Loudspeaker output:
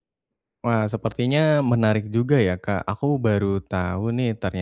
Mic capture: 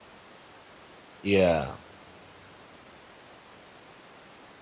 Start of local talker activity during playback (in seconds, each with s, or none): 1.2 s